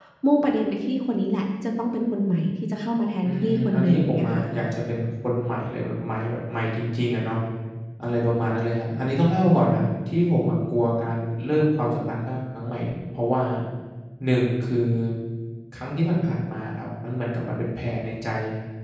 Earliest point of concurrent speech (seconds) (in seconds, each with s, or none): 3.2 s